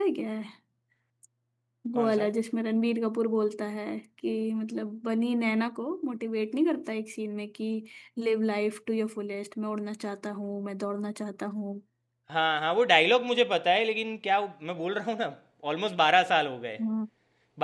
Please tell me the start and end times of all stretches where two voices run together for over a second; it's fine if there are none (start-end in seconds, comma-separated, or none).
none